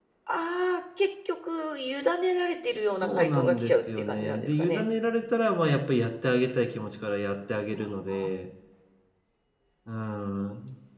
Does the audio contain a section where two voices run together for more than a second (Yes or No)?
Yes